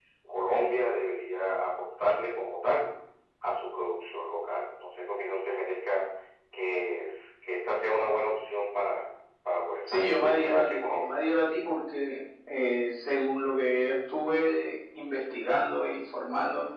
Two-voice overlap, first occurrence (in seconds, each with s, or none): 9.9 s